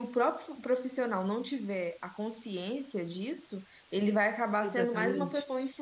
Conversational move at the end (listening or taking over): listening